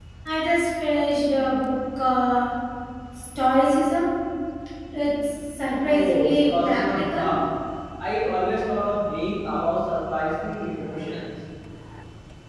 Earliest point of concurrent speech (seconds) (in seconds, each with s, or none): 5.8 s